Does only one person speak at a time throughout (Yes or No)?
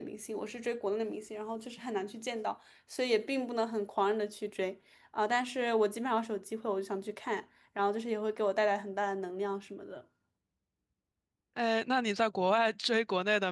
Yes